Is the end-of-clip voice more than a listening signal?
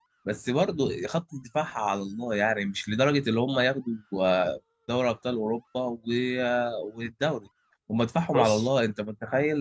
No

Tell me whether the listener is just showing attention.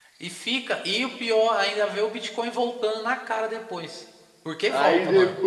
No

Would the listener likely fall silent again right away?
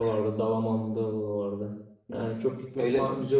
Yes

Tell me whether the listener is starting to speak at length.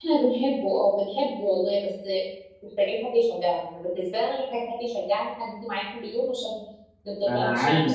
Yes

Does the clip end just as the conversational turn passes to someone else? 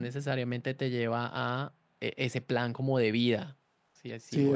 Yes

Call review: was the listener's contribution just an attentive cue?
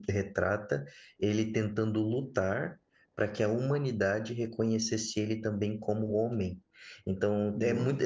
Yes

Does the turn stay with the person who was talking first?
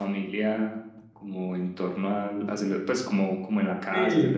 No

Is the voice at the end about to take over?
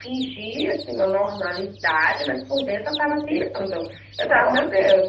No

